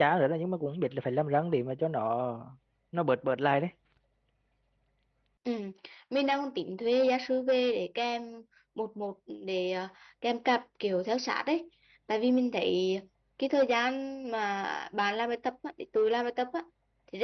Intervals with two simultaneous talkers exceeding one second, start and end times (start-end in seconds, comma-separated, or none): none